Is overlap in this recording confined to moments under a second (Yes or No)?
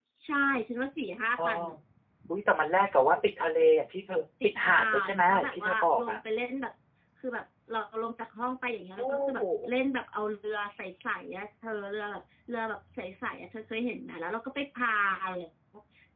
No